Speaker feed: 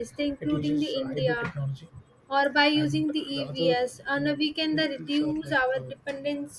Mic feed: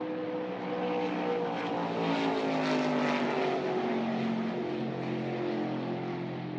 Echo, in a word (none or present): none